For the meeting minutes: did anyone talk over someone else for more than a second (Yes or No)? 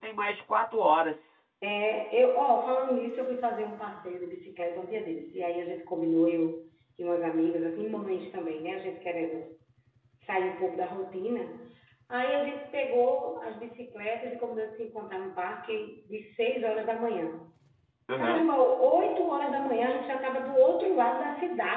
No